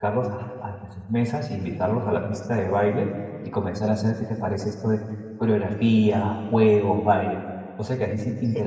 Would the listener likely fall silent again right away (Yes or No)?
No